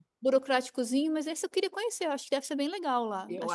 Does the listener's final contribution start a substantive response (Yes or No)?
Yes